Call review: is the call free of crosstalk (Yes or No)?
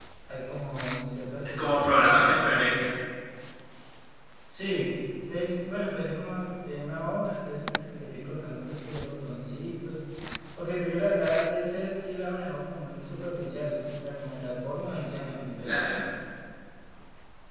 No